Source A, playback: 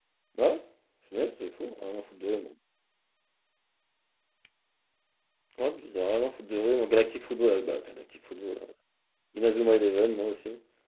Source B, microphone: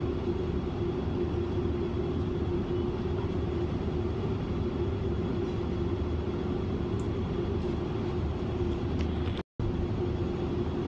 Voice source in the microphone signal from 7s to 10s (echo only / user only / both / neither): neither